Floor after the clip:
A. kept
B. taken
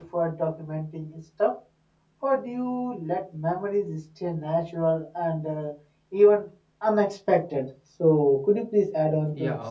B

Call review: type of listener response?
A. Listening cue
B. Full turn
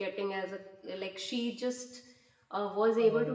A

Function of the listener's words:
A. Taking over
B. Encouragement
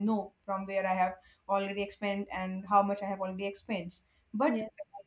B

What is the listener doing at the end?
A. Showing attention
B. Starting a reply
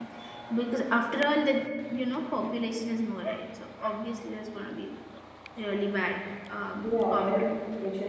B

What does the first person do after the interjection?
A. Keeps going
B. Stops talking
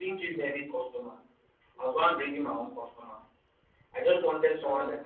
A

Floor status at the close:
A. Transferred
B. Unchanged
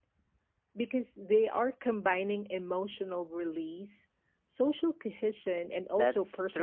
A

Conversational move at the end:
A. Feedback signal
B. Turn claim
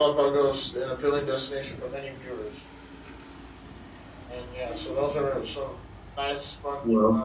A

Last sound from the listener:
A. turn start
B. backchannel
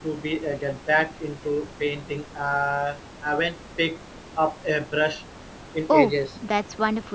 A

